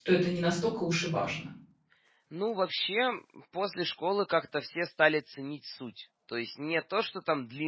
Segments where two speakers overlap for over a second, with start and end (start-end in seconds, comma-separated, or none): none